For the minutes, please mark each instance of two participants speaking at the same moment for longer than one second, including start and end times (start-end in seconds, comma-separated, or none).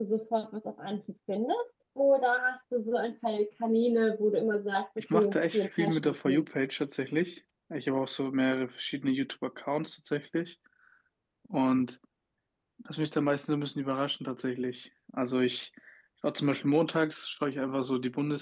5.1-6.4